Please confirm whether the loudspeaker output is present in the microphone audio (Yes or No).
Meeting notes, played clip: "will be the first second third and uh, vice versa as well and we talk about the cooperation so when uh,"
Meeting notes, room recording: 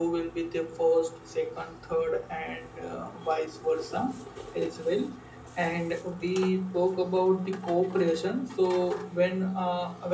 Yes